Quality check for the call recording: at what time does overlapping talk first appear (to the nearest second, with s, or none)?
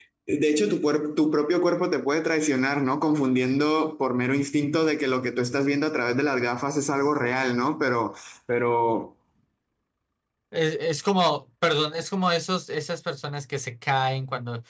none